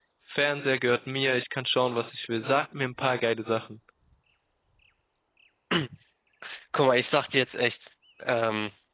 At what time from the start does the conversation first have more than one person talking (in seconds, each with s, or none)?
none